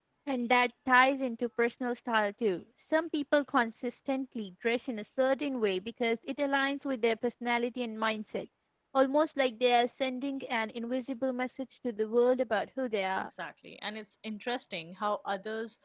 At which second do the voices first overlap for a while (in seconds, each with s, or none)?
none